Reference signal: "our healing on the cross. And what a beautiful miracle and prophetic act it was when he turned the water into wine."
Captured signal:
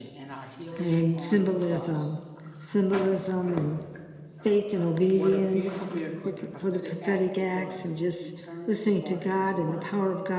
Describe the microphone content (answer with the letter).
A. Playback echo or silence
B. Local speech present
B